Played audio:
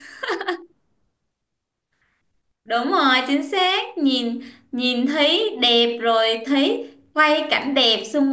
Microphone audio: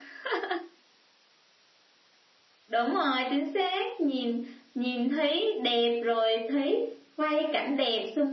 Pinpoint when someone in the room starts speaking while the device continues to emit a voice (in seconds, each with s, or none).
none